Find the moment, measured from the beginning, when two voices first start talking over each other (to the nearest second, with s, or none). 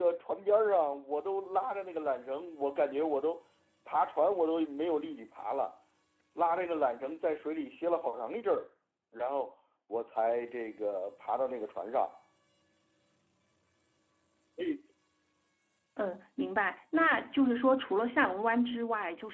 none